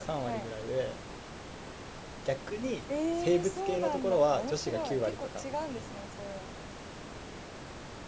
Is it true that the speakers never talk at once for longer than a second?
No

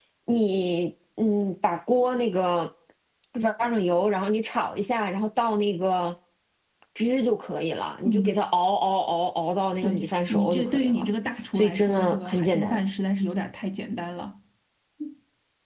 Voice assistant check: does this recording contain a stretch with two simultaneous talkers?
Yes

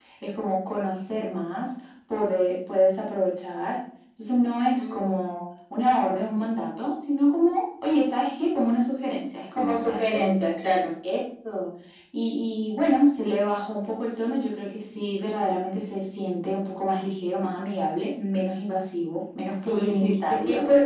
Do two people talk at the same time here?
Yes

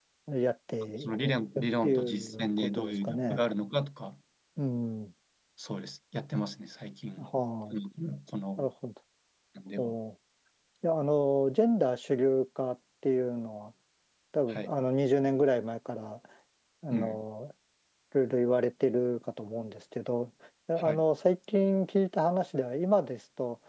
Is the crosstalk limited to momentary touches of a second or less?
No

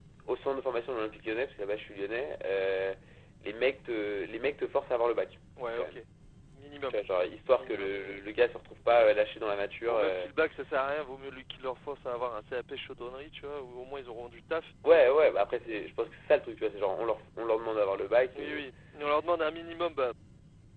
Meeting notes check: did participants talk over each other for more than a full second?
No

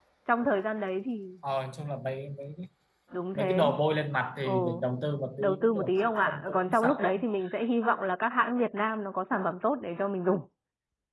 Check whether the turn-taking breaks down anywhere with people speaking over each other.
Yes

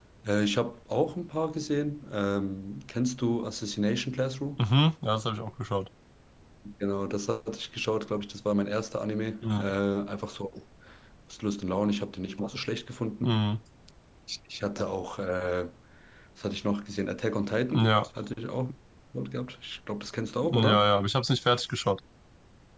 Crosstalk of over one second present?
No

